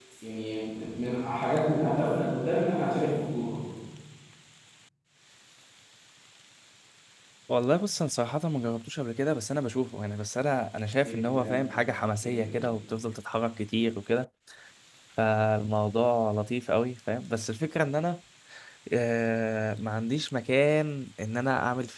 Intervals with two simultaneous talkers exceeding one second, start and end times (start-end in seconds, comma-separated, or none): none